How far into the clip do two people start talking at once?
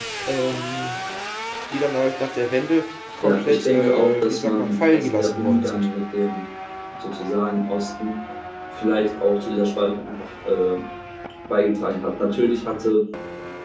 3 s

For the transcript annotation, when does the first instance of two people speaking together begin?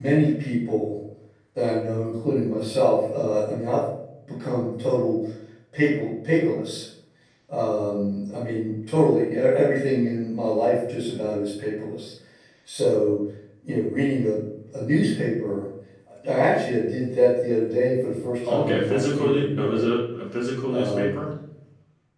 18 s

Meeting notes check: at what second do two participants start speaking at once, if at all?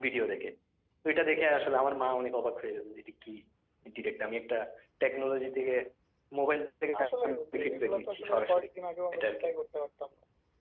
7 s

